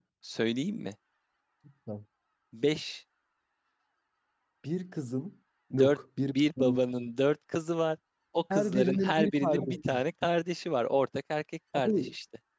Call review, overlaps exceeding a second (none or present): present